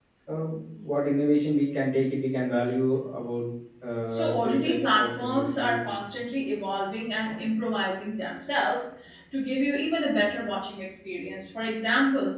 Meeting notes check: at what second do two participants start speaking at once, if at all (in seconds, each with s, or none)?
4.1 s